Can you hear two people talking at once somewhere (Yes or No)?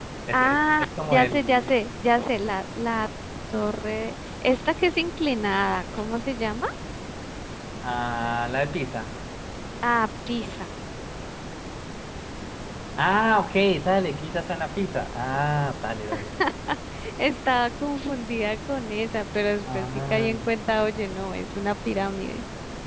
Yes